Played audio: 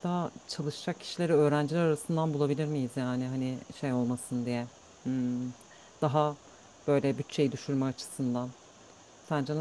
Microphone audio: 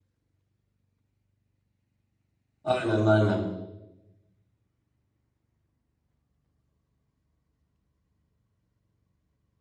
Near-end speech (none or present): present